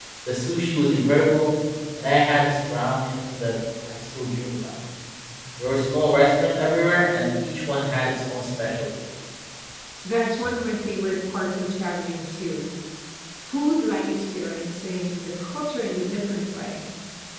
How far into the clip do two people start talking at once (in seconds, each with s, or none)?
none